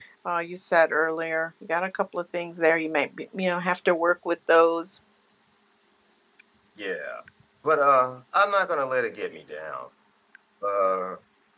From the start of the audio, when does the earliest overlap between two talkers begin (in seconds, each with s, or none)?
none